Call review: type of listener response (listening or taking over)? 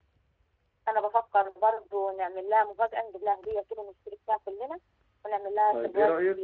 taking over